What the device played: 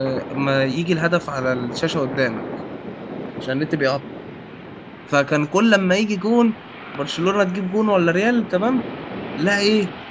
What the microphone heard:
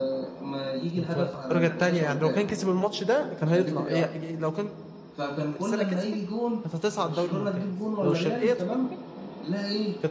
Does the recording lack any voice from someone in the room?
No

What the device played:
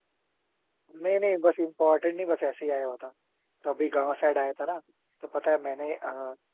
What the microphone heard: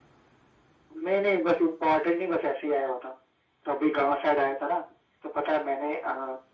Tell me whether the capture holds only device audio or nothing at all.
Yes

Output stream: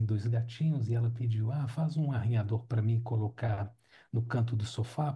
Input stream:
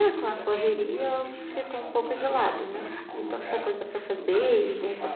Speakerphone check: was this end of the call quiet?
No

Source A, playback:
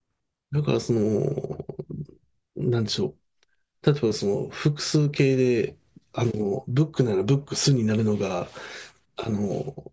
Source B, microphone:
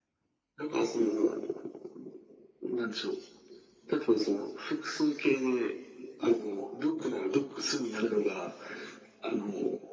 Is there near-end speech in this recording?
No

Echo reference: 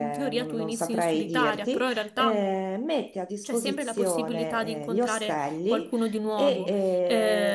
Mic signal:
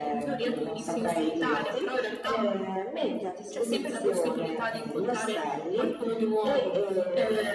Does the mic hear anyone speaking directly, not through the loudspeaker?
No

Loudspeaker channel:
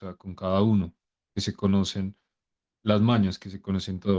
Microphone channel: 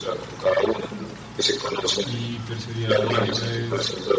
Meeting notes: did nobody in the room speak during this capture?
No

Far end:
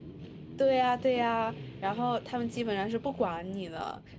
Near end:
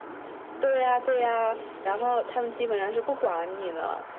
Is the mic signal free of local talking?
Yes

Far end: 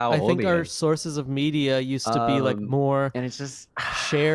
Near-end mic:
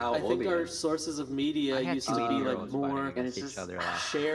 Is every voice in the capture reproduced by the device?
No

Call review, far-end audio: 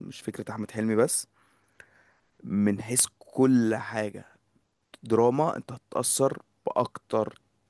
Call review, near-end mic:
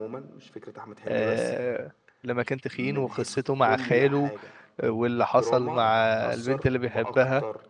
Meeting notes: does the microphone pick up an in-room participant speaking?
Yes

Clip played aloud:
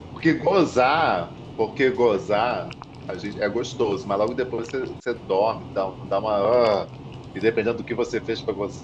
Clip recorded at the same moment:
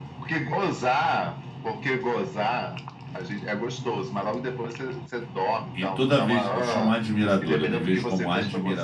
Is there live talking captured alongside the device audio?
Yes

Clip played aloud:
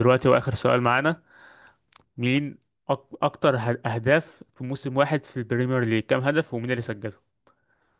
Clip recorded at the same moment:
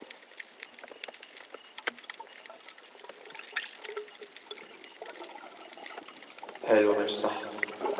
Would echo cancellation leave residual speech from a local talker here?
Yes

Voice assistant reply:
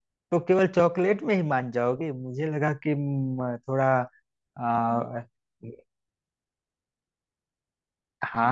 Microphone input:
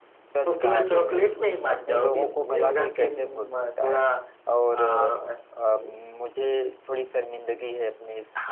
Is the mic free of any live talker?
No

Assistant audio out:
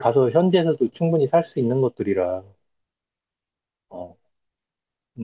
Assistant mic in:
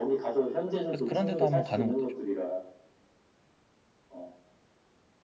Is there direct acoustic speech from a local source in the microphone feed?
Yes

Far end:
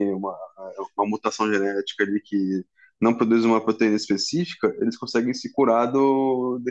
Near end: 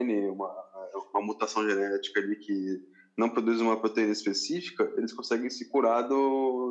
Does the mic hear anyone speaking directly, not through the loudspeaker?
No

